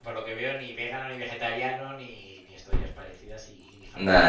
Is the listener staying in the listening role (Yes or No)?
Yes